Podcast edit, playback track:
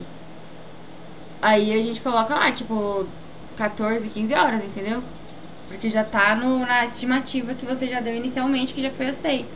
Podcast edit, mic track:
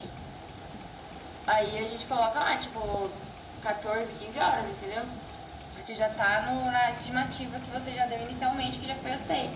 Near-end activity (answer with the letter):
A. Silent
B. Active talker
A